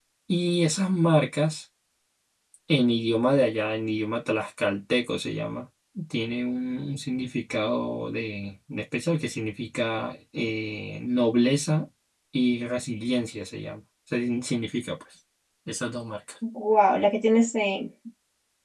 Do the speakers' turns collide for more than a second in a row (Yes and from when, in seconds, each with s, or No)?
No